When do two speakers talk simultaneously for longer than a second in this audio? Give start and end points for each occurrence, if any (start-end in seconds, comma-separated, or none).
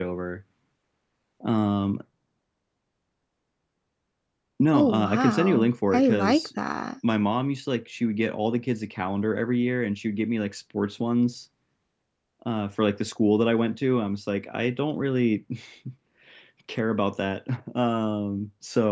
4.7-6.5